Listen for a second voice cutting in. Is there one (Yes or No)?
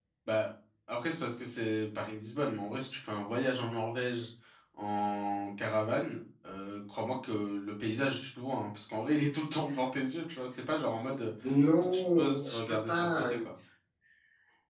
Yes